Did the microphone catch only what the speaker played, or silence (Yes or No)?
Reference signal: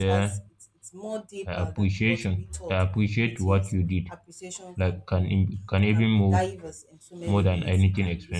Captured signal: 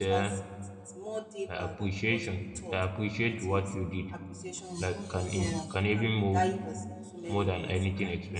No